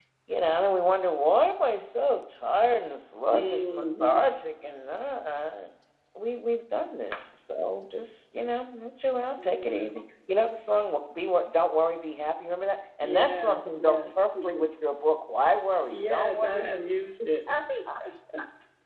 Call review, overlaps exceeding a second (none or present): present